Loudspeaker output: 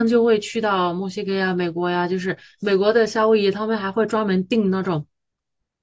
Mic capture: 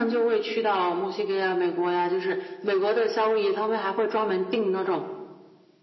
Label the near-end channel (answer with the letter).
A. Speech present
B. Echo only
B